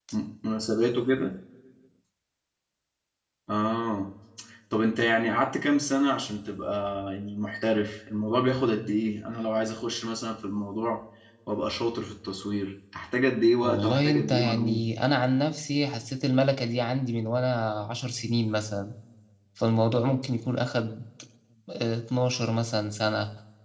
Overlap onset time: 14 s

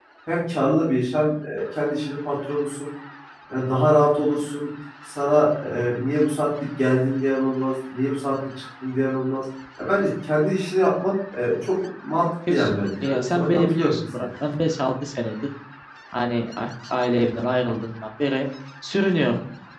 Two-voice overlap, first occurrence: 12 s

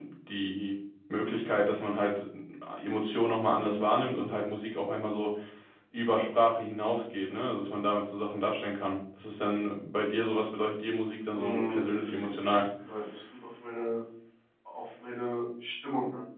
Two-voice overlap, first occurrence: 11 s

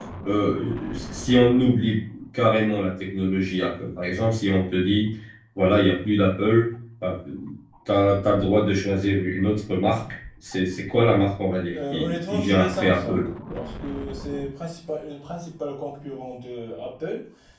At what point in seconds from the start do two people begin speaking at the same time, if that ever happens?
12 s

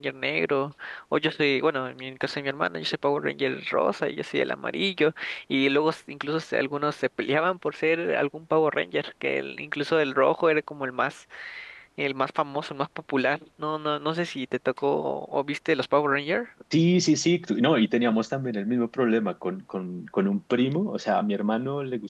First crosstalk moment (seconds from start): none

